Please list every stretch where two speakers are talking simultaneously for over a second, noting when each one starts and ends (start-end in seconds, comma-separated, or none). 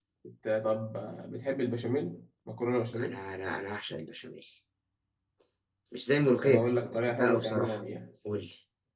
6.4-7.8